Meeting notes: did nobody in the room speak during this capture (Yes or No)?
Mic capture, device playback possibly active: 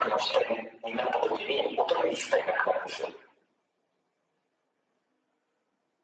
Yes